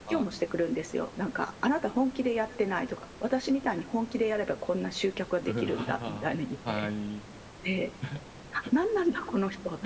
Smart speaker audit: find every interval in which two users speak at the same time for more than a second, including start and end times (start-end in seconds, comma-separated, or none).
5.5-6.9